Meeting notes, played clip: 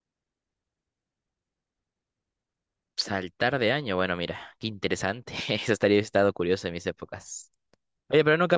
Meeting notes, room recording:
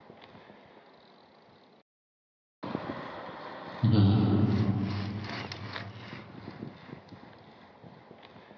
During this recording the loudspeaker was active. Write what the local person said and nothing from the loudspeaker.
Ujú.

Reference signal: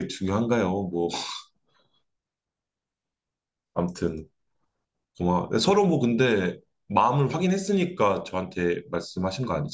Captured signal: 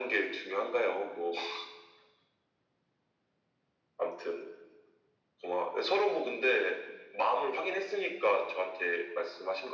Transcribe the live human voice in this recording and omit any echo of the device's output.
none

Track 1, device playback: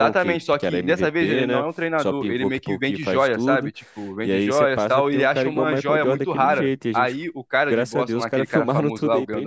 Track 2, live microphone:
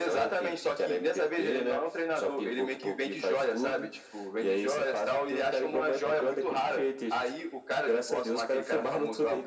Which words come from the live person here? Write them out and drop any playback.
none

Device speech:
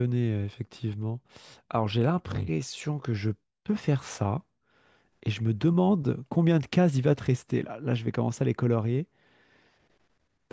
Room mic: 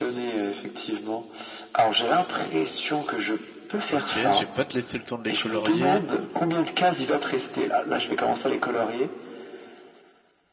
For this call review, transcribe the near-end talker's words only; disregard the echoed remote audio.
Ok, je vais pas te laisser le temps de les colorier.

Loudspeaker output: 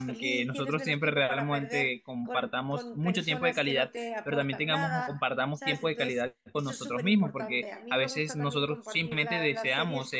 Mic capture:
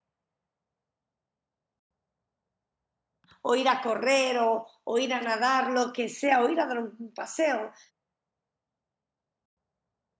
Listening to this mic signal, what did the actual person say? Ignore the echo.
o ir a correr, o, o ir a nadar, lo que sea, o ir a dar un paseo,

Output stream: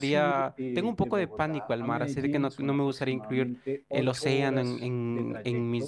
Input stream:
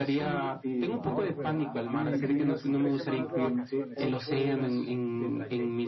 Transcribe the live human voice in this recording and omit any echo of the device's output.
Wow, pero me encanta que tengas tres semanas de vacaciones.

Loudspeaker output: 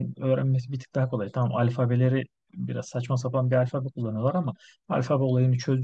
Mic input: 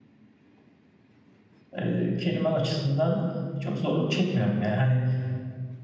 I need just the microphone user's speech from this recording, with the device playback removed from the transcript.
e, kelime açısından çok zorluk çekmiyorum. Yani hani

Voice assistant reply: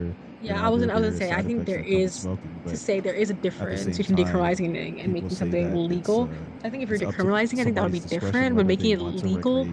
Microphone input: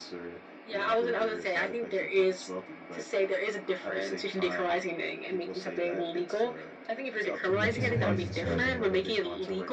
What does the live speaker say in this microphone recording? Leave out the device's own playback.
yeah. Campaigns and stuff.

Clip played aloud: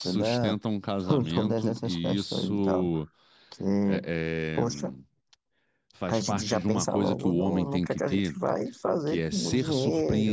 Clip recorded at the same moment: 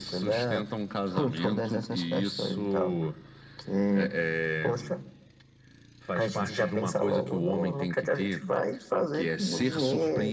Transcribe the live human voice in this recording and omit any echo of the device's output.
none

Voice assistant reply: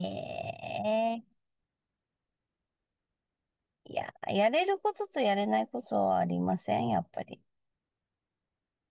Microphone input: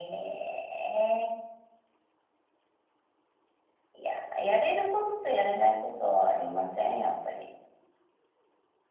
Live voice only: none

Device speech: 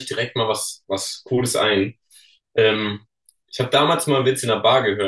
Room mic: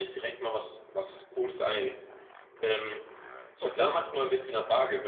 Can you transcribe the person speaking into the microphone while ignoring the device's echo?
Okay.

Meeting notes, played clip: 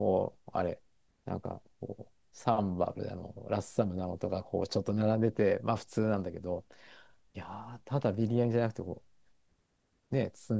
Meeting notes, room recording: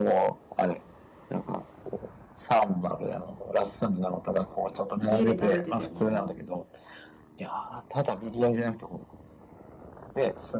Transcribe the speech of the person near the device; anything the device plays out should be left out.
家で食べてても、うん、

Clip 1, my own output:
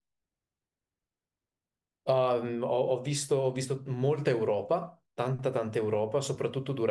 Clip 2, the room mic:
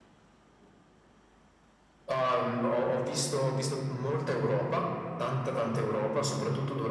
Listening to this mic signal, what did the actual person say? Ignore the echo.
none

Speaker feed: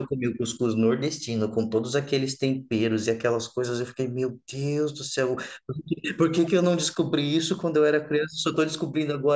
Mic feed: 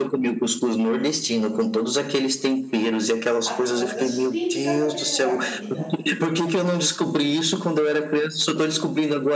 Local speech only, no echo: as coisas típicas daquele lugar, comida.

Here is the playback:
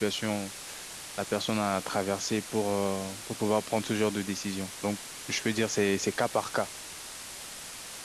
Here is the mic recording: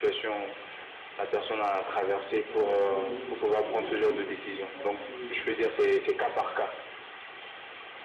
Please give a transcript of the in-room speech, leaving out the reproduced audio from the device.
Bah, je te pose déjà une question. Est-ce que, est-ce que tu penses que

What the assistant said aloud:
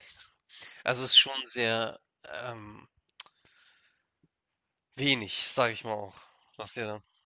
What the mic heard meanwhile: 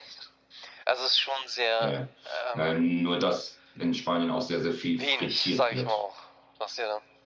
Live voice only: ja, ja. Äh, nur, dass in Spanien auch sehr, sehr viel frittiert wird.

